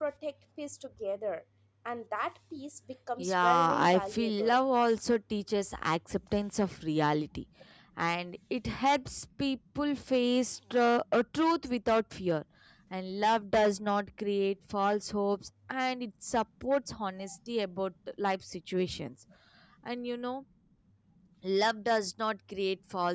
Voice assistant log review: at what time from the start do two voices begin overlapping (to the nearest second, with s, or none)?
3 s